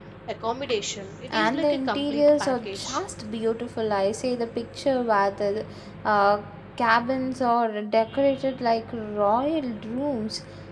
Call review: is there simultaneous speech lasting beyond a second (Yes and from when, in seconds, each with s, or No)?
Yes, from 1.3 s